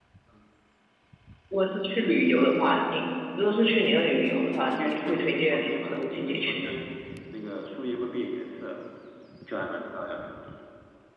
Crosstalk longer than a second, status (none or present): present